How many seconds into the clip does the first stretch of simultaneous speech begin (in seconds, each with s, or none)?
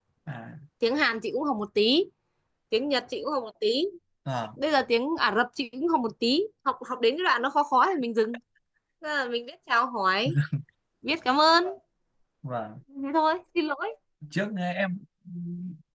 none